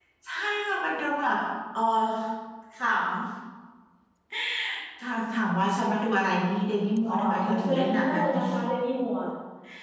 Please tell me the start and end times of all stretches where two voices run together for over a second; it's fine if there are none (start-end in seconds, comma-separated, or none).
7.1-8.4